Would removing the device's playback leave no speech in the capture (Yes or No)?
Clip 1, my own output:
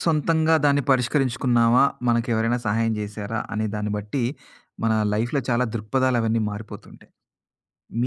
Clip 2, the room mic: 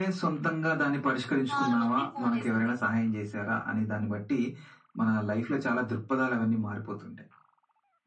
No